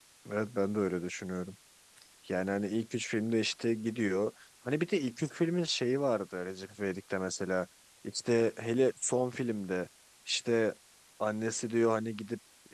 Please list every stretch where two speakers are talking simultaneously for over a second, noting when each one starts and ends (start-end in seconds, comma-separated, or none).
none